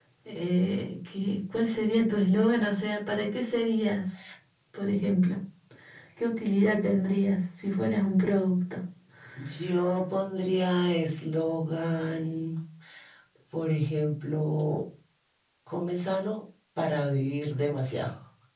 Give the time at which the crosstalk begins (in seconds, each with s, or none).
none